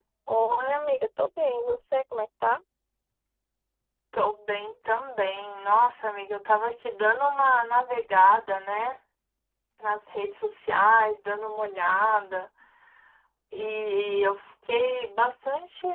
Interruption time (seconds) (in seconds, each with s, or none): none